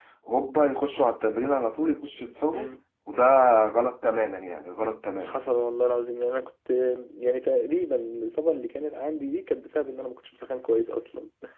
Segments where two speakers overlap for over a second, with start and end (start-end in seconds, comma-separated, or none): none